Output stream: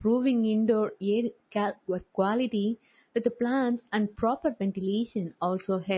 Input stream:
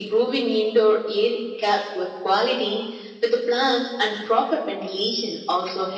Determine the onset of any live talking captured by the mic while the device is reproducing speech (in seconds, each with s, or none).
none